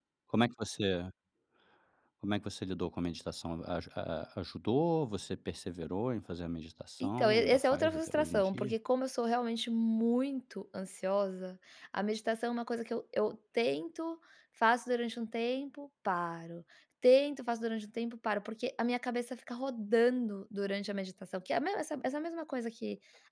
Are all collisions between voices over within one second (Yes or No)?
No